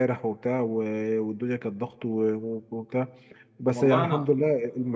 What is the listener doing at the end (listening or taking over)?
listening